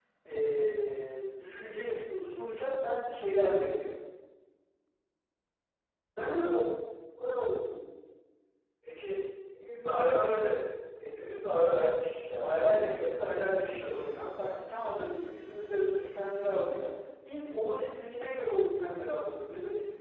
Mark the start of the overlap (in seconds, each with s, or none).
12.4 s